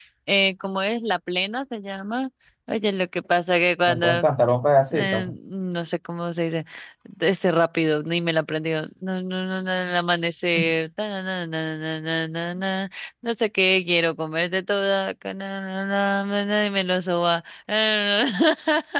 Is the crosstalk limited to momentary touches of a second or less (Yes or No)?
Yes